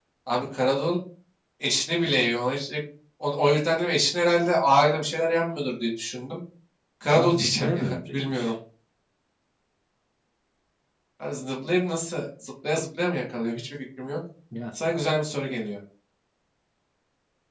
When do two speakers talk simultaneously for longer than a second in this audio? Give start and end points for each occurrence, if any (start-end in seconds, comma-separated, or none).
7.1-8.5